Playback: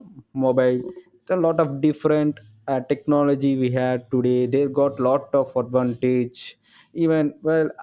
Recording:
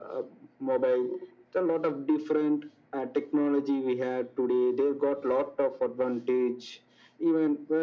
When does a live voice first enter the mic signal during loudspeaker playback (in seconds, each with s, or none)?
none